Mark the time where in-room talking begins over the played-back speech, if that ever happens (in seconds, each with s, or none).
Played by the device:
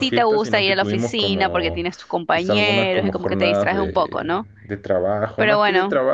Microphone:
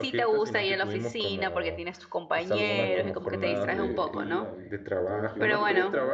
2.3 s